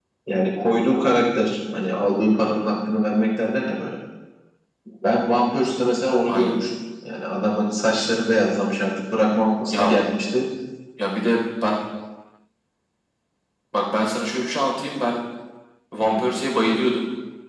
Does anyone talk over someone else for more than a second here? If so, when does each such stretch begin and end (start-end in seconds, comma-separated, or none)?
none